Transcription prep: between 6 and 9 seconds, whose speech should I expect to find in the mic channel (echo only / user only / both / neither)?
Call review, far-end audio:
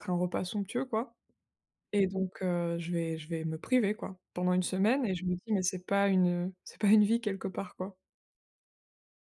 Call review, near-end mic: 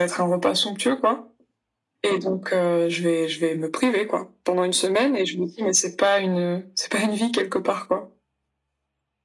echo only